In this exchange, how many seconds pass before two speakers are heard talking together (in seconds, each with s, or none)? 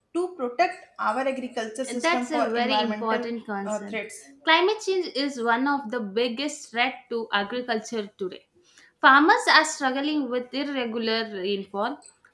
2.0 s